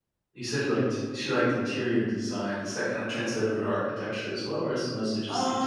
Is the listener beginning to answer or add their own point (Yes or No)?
Yes